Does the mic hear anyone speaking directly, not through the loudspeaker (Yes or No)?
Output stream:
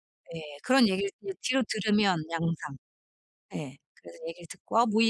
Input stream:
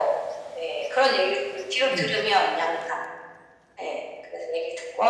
Yes